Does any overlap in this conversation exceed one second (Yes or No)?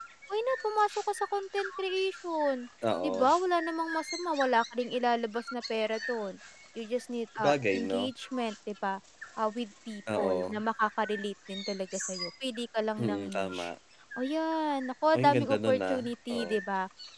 Yes